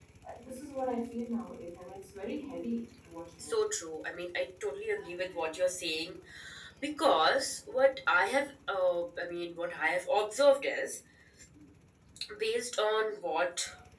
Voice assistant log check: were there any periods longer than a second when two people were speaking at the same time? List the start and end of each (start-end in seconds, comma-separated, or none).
none